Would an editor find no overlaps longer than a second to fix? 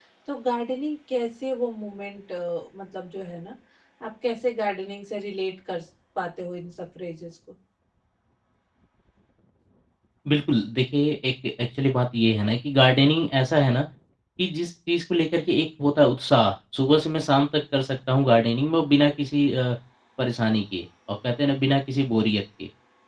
Yes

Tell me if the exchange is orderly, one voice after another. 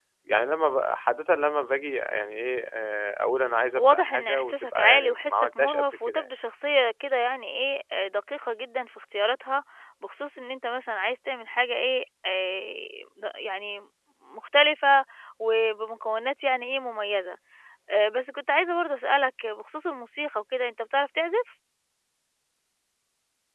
No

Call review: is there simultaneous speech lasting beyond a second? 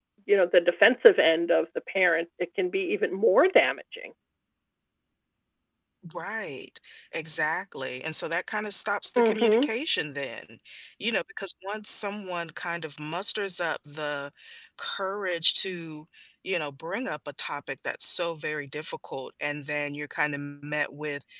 No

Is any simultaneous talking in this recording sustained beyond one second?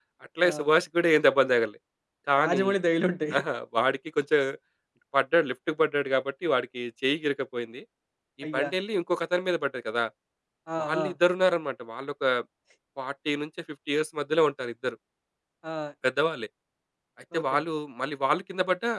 No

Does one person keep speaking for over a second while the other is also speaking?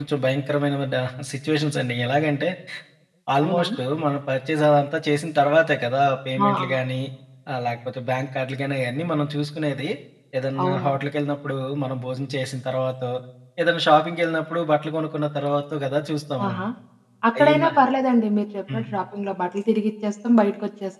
No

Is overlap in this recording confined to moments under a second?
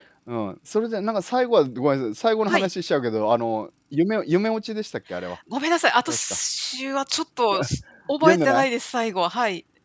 Yes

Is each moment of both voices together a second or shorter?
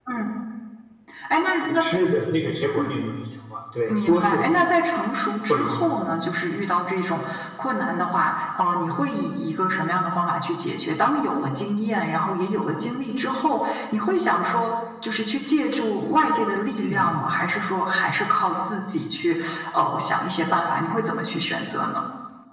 Yes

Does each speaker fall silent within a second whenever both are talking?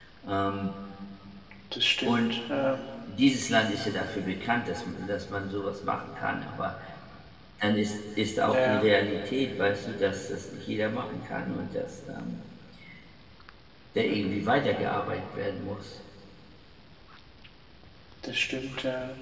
Yes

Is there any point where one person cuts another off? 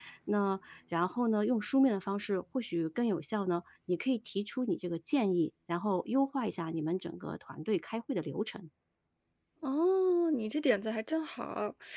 No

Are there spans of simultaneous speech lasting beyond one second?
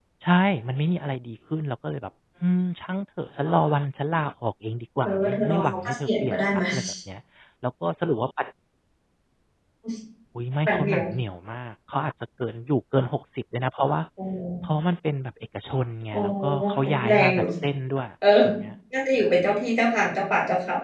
Yes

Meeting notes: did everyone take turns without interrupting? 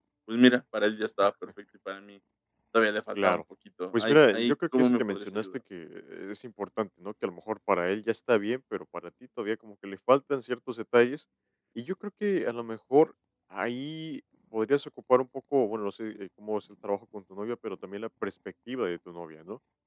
No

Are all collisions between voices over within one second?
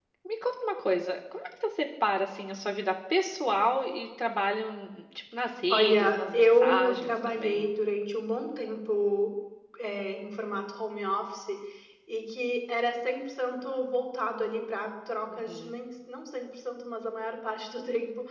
No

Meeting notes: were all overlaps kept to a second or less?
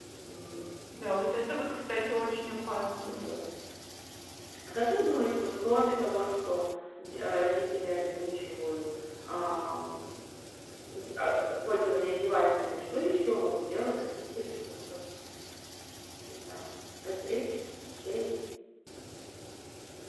Yes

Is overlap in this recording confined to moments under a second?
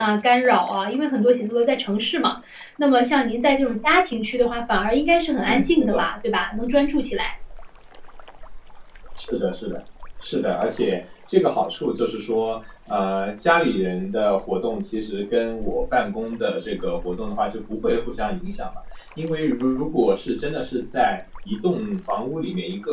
Yes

